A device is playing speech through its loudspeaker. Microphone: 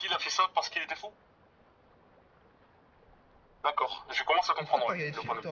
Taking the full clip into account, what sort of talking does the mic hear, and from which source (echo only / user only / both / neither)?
both